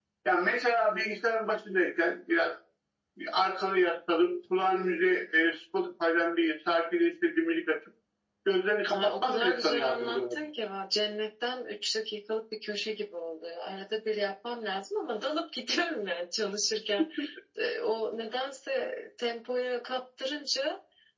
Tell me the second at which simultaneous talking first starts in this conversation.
9 s

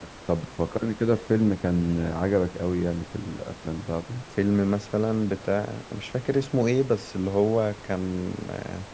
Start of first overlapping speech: none

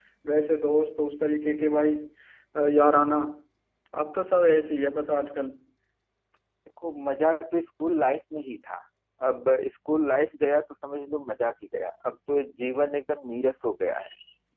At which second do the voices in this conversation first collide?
none

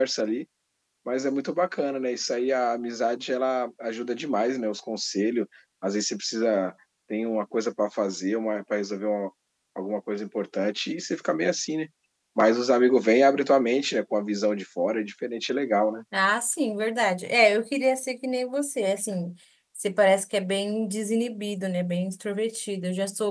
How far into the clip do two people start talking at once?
none

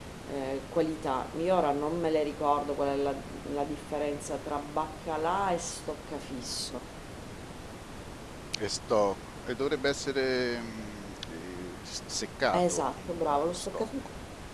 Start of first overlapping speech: 13 s

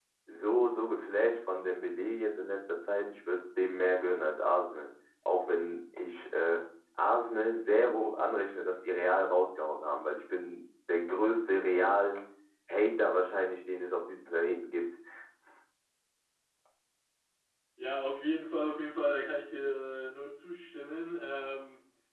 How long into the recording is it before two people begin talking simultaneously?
none

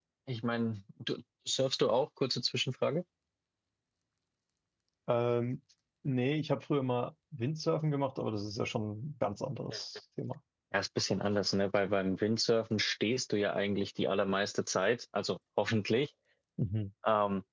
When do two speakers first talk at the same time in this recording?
none

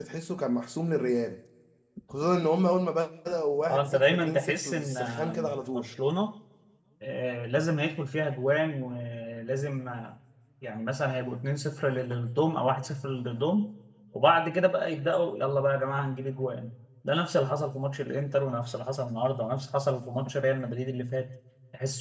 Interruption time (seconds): 4 s

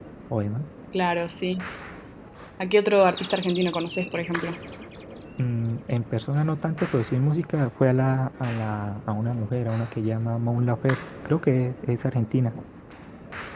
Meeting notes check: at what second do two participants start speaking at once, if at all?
none

